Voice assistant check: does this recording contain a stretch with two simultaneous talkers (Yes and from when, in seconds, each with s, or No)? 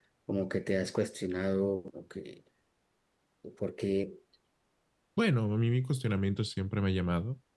No